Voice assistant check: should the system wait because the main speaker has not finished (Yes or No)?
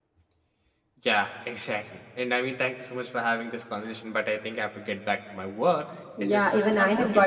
No